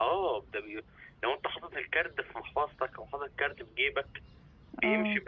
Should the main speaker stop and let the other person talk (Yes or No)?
No